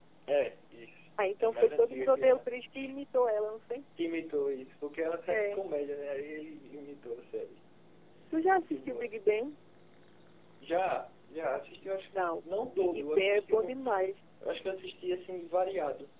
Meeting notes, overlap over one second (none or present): present